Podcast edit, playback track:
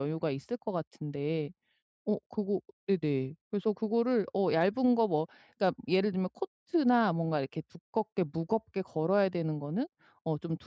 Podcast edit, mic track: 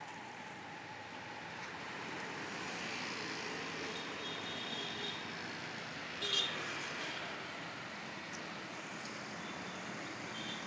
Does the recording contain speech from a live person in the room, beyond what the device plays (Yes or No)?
No